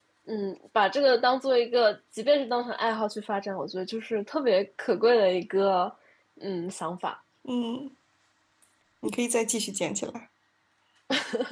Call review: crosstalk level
none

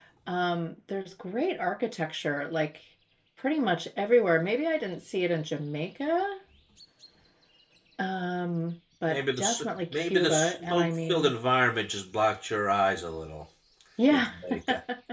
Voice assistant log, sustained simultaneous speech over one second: present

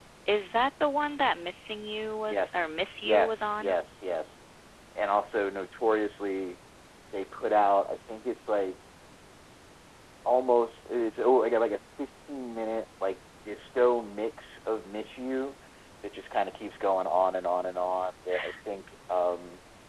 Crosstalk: present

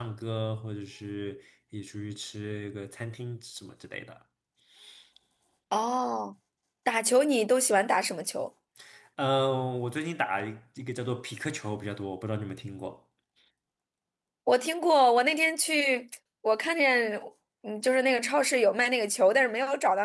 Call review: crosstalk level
none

